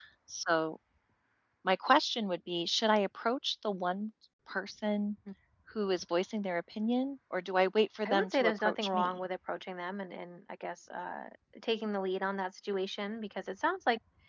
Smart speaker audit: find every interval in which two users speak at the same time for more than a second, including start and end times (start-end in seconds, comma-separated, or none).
8.1-9.3